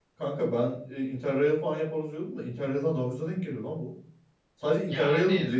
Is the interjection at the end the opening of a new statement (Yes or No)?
No